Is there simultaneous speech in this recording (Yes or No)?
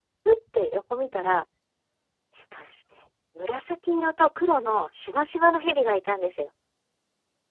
No